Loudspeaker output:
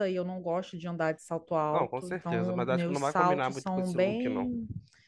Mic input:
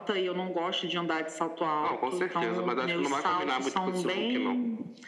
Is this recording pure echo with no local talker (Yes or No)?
Yes